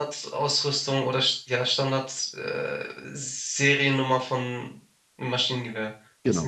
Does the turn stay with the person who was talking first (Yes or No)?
No